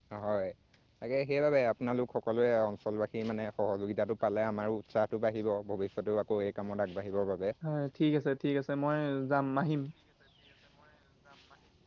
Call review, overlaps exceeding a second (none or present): none